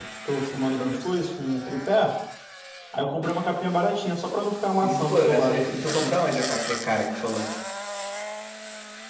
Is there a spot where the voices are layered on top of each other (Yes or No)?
Yes